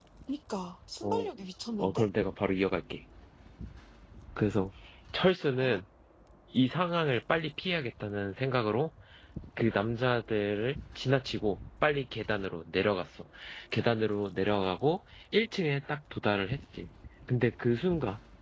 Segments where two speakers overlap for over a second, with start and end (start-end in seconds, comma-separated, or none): none